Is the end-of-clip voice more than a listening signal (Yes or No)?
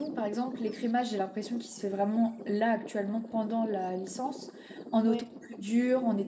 No